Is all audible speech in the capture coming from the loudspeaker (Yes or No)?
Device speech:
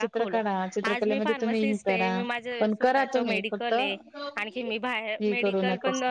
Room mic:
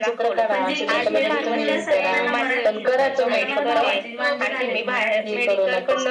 No